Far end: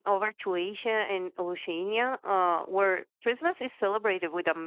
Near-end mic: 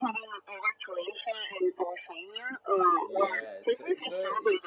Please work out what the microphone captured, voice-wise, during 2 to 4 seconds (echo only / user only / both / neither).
both